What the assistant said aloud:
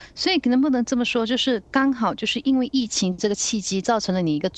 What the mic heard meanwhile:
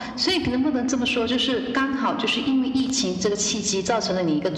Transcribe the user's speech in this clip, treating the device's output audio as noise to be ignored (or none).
none